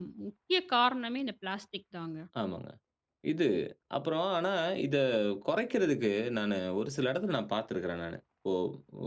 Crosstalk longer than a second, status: none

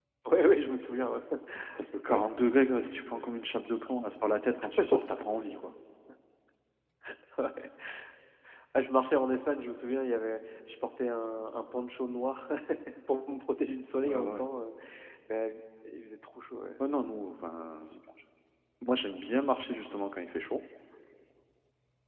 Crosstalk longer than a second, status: none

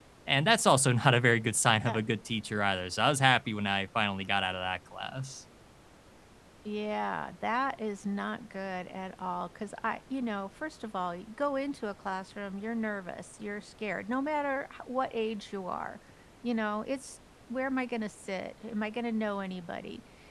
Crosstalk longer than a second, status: none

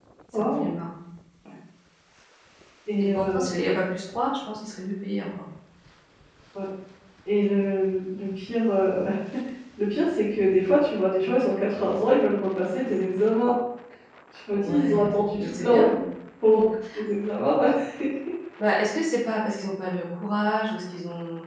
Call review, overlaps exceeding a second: present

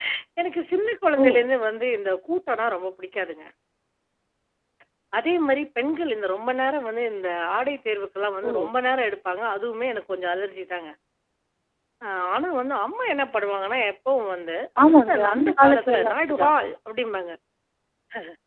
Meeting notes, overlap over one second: present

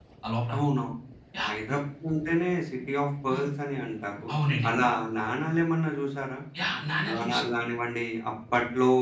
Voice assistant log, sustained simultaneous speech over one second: none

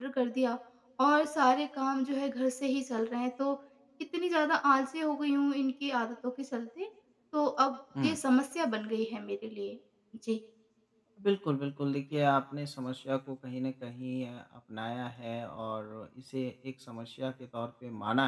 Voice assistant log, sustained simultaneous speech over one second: none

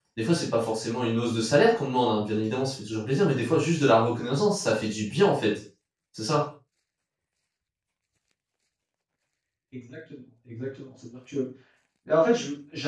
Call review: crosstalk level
none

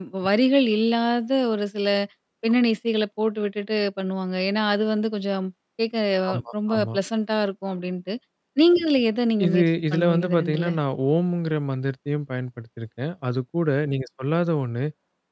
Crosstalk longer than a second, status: present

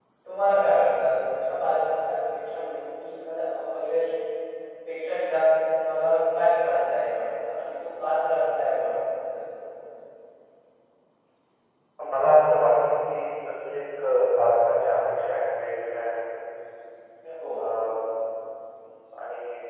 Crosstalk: none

